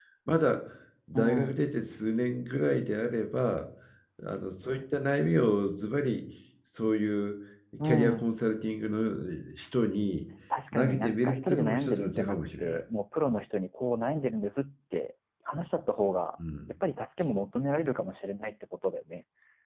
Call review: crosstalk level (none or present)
present